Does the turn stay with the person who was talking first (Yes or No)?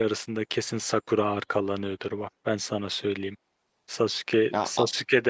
Yes